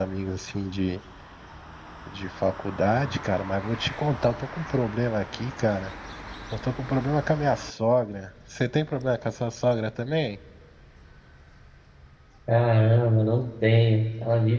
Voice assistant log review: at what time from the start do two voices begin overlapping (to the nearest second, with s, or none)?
none